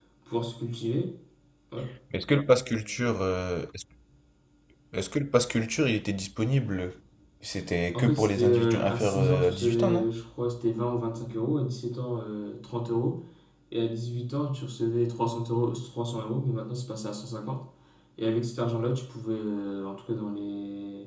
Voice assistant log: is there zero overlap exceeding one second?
No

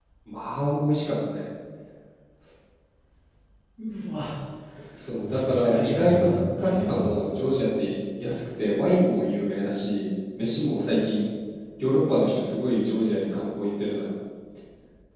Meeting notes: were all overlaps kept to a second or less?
No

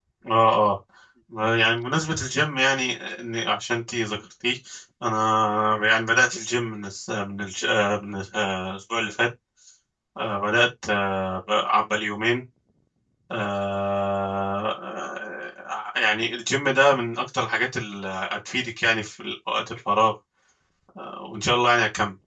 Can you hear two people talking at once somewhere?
No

